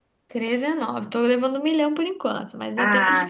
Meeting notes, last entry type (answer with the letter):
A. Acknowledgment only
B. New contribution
B